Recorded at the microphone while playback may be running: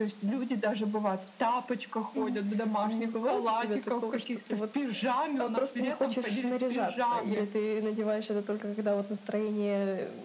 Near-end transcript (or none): none